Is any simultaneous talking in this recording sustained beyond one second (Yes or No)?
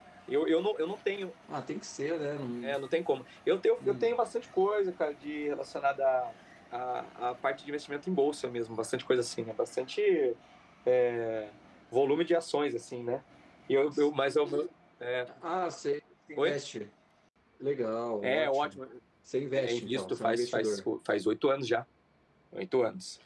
Yes